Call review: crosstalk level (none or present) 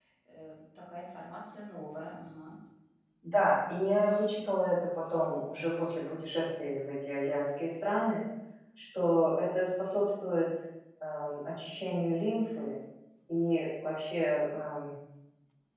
none